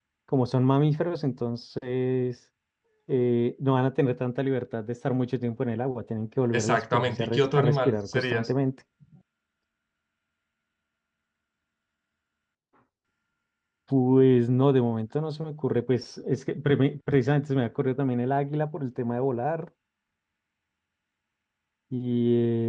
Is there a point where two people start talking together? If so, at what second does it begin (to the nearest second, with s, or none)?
7 s